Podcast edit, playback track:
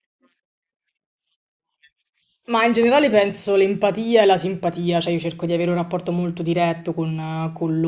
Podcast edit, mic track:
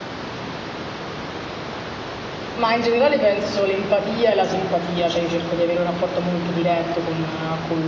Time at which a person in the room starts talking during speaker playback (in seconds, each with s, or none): none